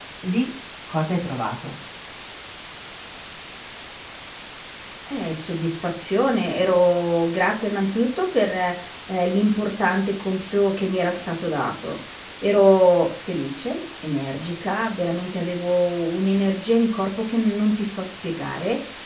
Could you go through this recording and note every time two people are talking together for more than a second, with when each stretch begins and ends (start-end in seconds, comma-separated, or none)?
none